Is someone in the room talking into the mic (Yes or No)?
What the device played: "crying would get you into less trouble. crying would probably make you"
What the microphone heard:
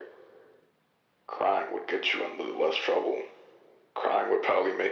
No